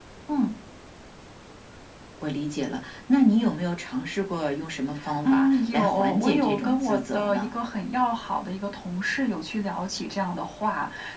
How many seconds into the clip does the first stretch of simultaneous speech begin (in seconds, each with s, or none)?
5.2 s